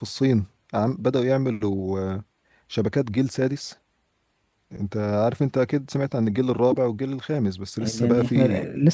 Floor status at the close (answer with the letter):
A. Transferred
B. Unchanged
A